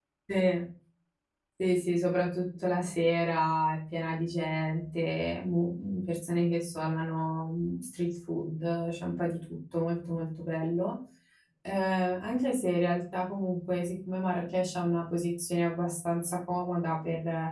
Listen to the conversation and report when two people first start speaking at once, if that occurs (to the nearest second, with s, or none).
none